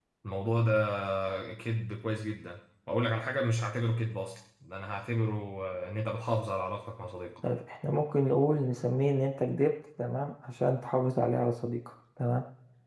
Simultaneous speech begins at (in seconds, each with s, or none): none